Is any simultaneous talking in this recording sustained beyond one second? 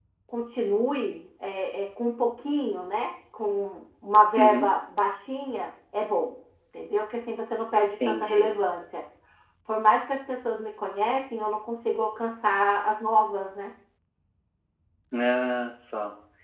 No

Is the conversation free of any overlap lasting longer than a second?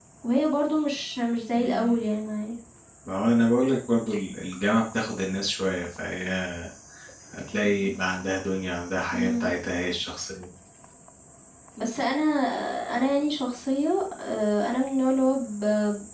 Yes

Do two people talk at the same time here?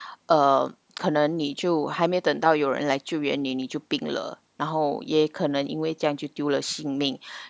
No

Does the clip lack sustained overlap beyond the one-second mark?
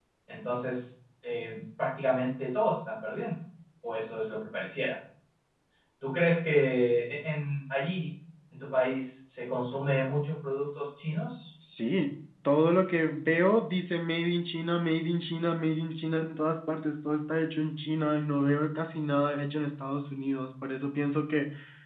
Yes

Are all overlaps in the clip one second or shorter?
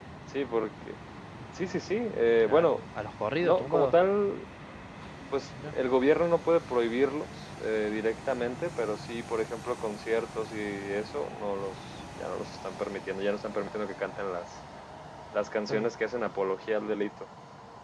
Yes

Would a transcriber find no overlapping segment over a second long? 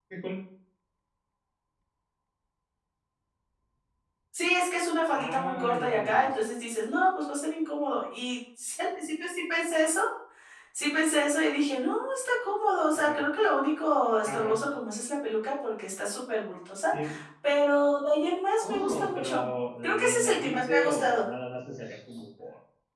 No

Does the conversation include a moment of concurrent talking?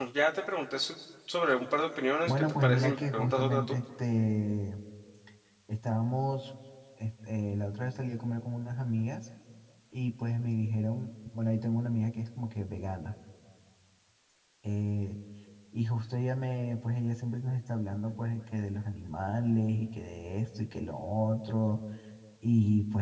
Yes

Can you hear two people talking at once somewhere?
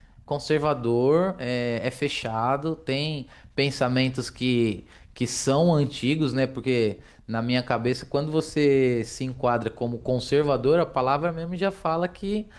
No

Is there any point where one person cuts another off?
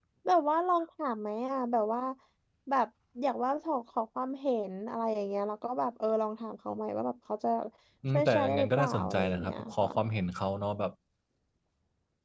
Yes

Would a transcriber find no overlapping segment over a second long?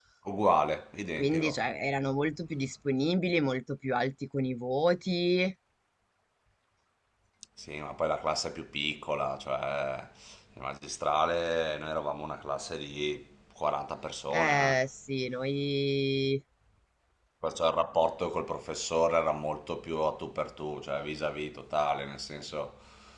Yes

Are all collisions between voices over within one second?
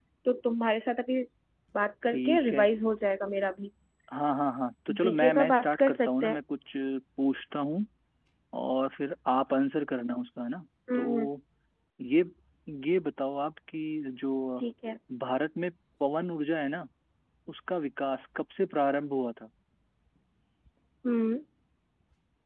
No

